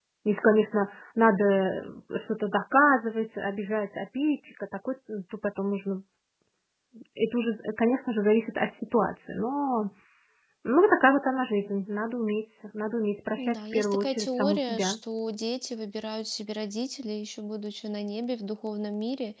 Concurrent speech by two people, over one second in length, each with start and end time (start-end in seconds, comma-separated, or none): 13.4-14.9